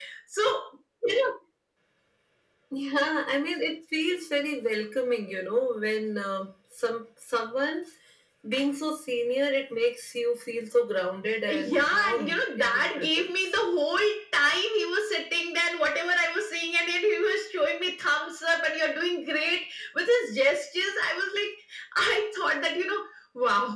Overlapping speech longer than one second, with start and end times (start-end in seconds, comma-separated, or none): 11.5-13.5